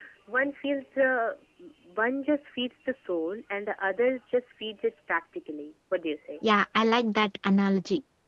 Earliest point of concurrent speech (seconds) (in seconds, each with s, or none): none